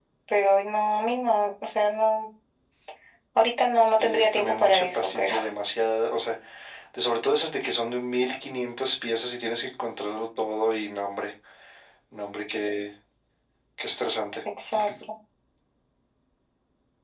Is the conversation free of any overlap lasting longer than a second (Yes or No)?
No